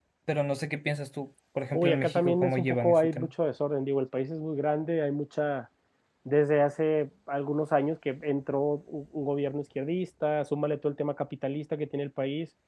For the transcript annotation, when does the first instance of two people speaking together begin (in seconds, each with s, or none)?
1.7 s